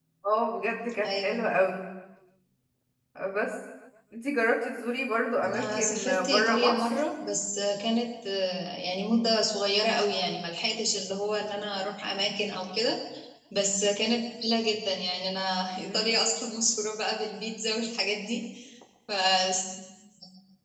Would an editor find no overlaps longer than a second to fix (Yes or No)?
No